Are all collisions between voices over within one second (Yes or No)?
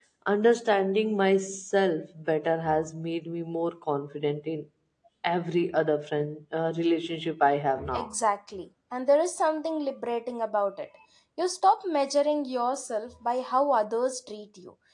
Yes